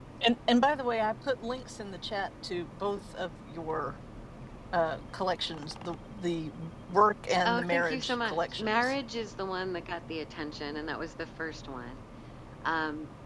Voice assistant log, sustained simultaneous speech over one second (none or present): present